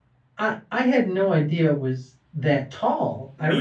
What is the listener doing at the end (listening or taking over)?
listening